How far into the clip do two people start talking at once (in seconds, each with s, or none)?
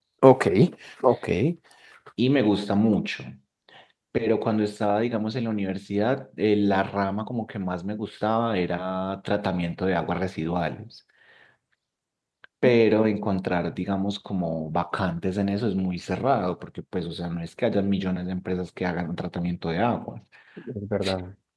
none